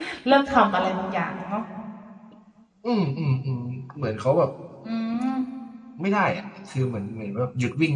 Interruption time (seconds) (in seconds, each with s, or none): none